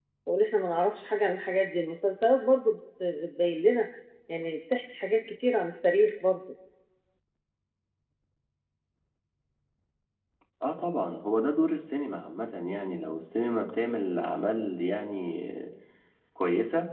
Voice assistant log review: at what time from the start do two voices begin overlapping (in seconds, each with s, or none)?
none